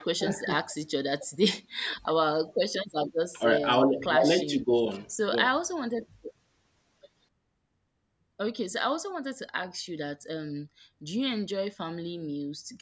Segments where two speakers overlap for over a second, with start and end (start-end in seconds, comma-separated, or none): 3.4-4.6